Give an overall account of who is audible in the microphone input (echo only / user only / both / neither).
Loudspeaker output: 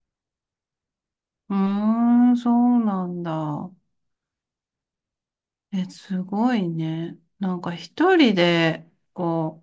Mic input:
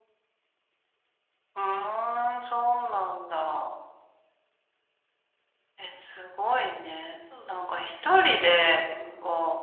both